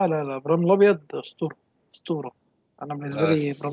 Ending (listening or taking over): listening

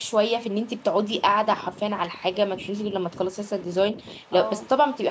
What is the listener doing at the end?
listening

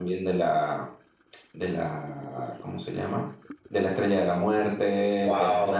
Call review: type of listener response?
listening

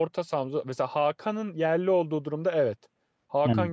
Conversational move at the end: listening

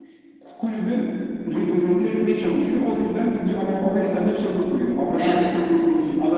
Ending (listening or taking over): listening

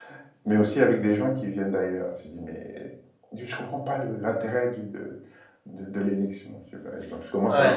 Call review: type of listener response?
taking over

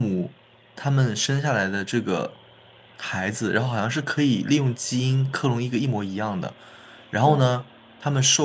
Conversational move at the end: listening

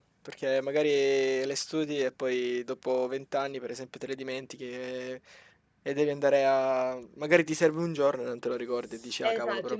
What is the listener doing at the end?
taking over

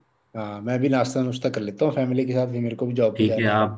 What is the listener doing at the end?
taking over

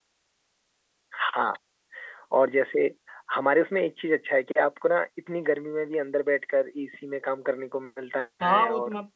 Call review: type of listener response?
taking over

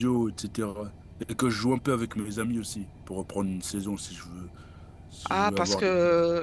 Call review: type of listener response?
taking over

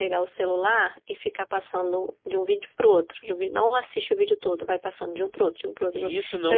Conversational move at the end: taking over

